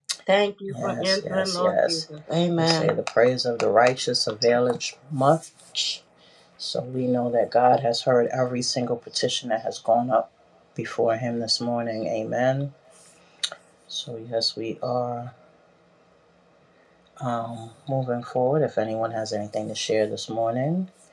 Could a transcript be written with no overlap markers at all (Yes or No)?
No